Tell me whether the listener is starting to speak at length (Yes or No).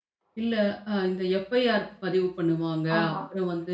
No